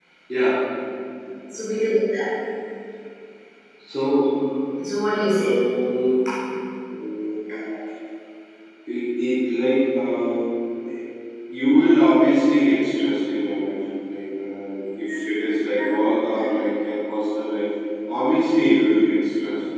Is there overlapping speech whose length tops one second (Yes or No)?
No